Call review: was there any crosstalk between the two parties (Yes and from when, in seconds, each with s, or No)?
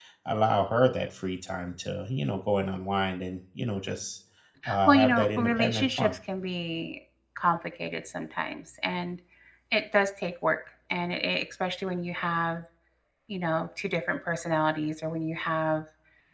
Yes, from 4.9 s